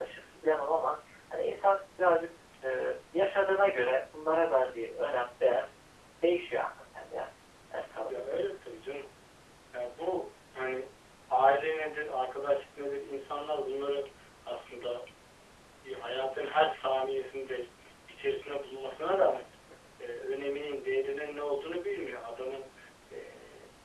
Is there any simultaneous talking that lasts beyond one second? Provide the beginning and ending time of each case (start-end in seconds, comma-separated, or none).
none